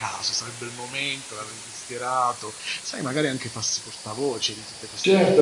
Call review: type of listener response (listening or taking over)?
taking over